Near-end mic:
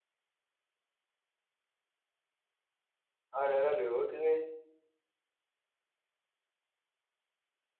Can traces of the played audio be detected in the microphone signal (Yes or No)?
No